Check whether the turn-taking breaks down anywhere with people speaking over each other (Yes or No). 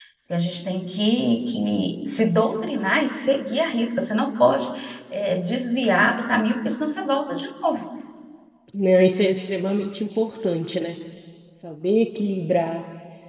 No